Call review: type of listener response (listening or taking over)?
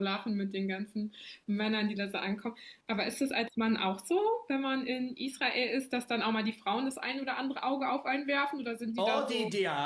taking over